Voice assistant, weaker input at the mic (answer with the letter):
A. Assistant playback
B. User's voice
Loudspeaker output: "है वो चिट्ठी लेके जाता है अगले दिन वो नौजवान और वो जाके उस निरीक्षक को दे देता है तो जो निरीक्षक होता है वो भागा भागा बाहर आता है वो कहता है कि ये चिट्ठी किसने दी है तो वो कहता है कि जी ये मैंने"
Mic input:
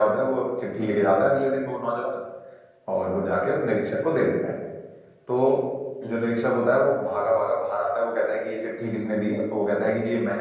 B